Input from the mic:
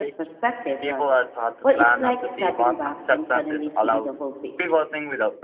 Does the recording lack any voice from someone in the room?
No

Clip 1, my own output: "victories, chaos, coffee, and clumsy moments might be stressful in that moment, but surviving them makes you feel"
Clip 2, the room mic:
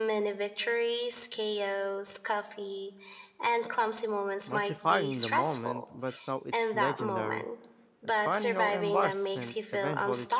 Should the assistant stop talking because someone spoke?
Yes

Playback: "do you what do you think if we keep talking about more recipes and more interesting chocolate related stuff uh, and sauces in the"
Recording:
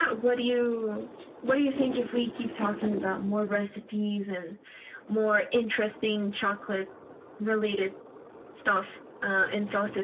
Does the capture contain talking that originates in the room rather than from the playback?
No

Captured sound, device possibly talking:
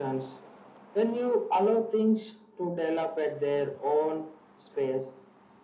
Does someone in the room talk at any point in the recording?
No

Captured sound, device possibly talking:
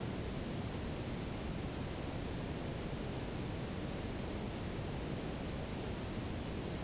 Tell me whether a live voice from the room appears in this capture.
No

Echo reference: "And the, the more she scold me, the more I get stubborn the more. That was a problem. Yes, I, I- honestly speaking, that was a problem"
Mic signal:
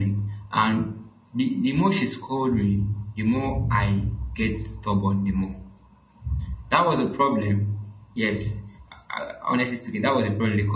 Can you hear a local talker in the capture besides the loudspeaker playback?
No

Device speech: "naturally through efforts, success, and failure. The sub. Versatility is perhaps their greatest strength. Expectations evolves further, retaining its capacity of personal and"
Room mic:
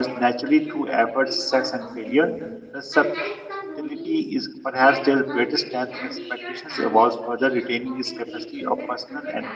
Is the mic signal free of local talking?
No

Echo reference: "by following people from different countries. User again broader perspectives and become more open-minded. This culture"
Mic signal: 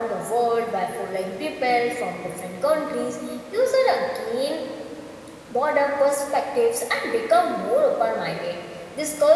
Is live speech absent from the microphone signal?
Yes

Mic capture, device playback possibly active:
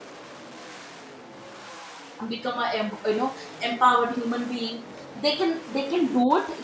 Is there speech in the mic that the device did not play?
Yes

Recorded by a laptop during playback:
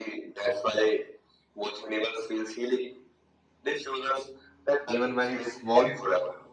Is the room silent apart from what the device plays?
No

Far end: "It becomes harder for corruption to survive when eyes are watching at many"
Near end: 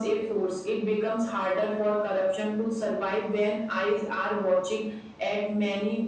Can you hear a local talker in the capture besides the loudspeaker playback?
No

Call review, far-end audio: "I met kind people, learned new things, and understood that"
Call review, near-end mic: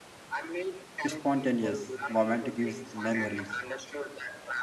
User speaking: Yes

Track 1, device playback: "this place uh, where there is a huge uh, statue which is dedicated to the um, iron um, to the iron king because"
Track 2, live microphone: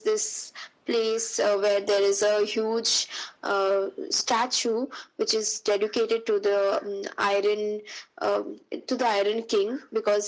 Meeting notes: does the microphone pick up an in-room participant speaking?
No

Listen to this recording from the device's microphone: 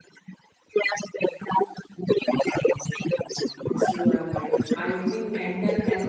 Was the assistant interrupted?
Yes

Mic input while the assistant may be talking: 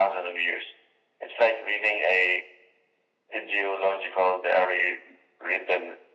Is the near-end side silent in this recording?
Yes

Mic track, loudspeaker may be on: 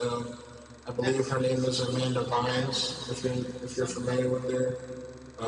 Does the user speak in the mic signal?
Yes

